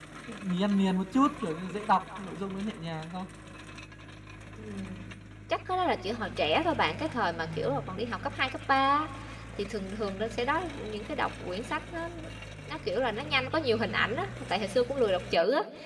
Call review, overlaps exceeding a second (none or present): none